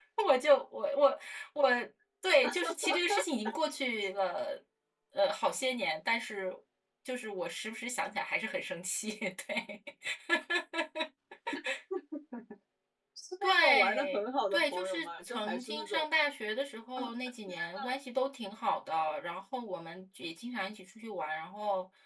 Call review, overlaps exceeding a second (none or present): present